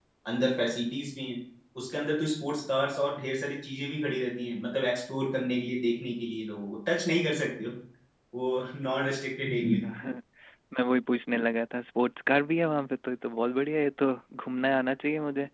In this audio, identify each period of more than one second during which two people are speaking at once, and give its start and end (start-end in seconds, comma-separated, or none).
none